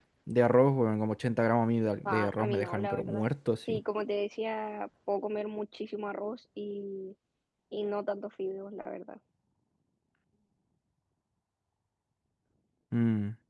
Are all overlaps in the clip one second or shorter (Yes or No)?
No